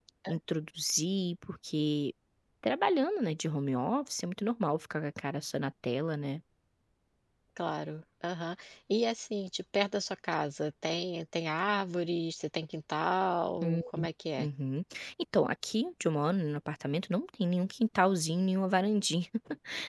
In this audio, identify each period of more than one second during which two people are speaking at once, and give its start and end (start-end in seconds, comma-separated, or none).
none